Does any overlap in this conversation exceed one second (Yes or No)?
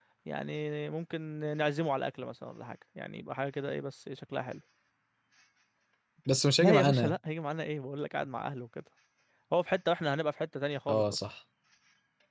No